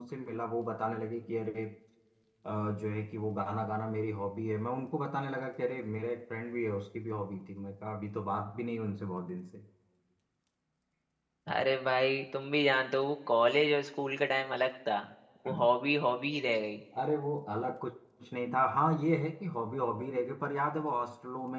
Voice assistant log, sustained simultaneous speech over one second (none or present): none